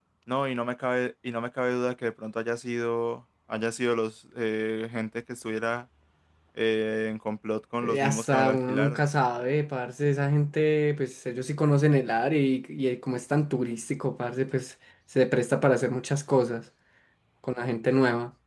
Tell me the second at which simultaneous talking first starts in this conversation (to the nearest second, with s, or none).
8 s